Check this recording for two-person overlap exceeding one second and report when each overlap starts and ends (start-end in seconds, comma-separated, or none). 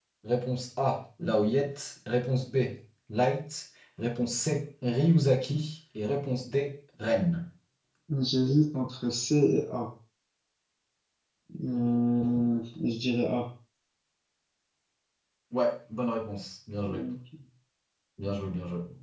none